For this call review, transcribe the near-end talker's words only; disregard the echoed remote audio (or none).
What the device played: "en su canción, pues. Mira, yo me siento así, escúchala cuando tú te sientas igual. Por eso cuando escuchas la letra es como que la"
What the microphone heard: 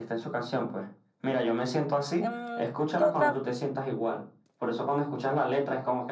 Mm, ¿qué otra